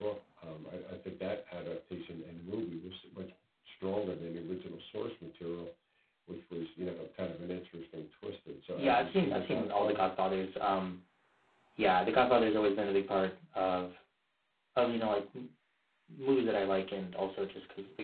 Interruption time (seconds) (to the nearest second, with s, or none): 9 s